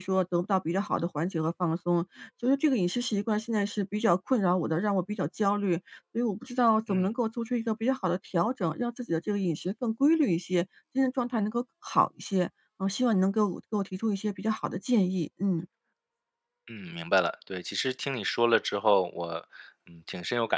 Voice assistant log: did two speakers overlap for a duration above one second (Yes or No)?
No